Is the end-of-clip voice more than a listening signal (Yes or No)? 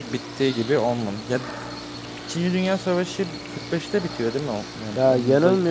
Yes